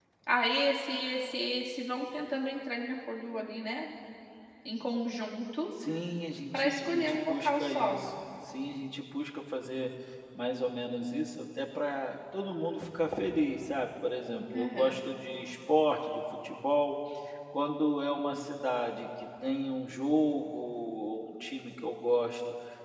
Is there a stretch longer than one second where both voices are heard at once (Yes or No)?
Yes